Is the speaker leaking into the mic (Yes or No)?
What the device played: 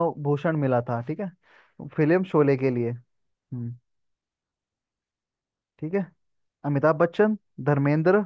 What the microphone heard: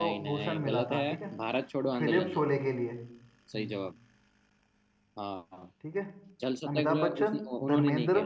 Yes